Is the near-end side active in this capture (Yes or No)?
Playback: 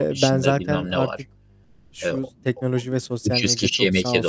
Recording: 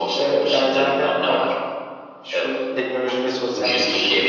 No